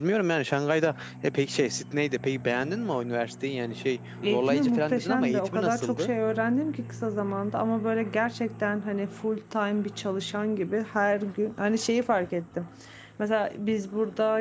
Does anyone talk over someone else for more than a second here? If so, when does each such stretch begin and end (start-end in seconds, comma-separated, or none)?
4.3-6.1